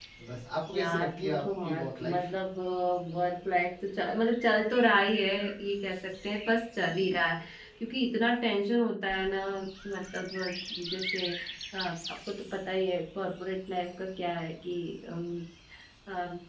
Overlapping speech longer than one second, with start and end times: 0.7-2.3

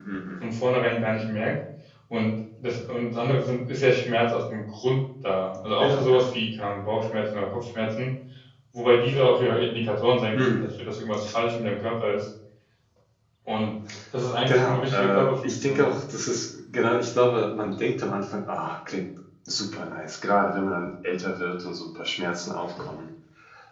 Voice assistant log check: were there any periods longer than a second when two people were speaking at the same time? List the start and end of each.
14.5-15.8

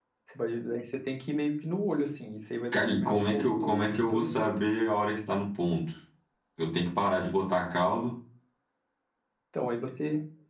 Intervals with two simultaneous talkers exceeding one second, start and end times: 2.7-4.5

